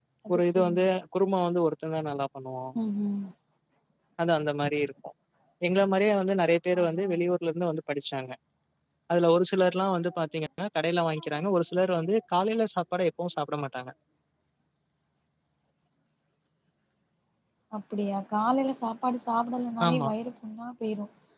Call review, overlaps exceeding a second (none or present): none